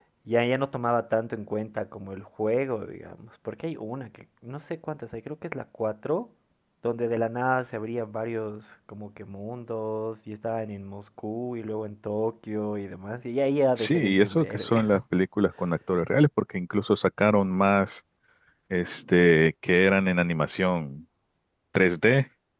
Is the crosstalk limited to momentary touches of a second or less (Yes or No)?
No